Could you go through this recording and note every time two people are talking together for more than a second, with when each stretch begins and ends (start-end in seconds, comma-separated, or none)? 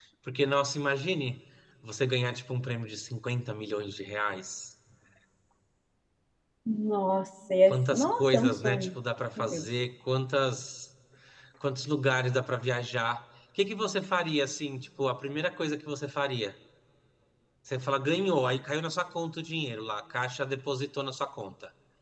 7.7-8.9